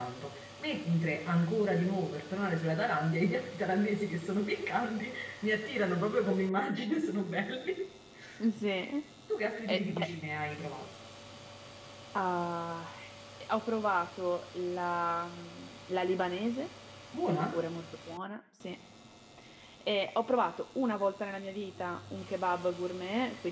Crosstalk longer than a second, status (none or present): none